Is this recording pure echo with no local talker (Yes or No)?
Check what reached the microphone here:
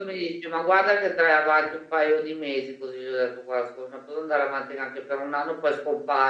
Yes